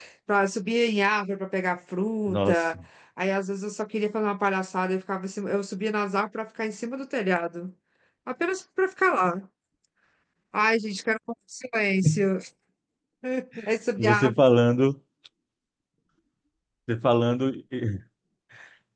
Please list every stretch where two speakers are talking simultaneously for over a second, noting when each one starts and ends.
none

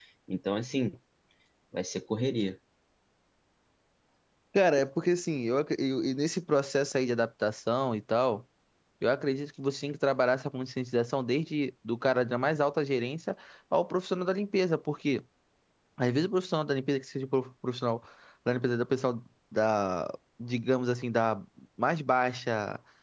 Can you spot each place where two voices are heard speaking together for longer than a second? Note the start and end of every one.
none

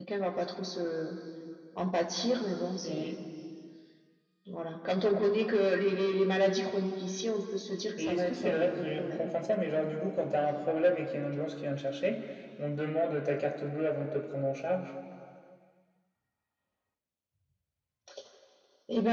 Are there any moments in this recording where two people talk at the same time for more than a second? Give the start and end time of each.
8.0-9.3

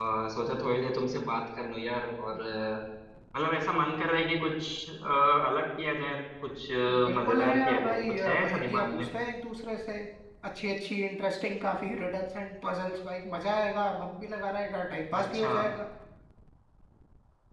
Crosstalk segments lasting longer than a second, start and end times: 6.9-9.1

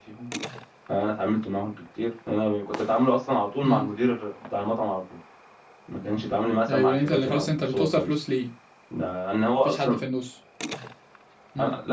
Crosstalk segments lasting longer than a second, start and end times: 6.7-8.1

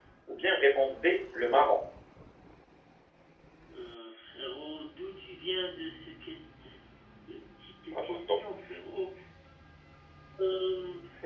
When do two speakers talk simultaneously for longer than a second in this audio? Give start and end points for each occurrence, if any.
none

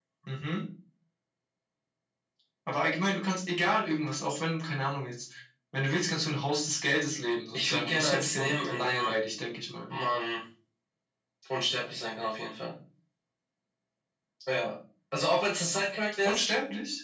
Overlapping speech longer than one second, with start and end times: 7.5-9.1

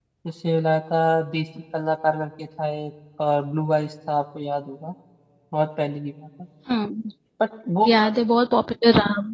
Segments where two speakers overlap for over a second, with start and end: none

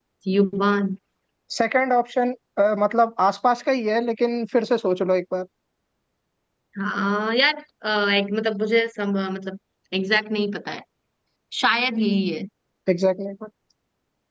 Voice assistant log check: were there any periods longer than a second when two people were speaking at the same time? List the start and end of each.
none

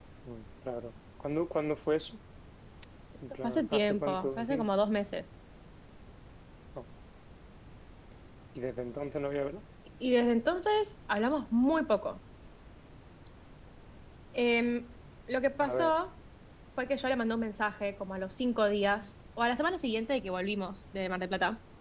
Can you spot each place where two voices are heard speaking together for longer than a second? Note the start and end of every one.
3.4-4.7

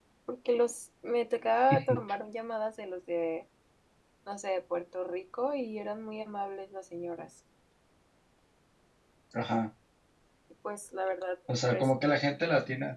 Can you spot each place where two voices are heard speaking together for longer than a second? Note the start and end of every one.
none

